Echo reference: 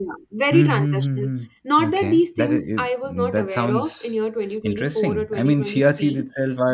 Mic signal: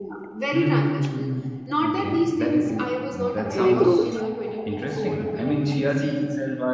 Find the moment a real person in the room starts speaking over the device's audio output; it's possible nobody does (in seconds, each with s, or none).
3.5 s